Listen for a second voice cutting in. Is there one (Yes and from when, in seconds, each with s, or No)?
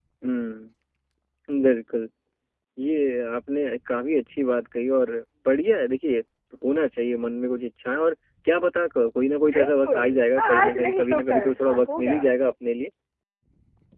Yes, from 9.5 s